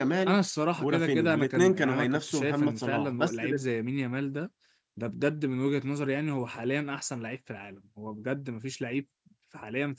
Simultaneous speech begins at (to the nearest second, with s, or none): 1 s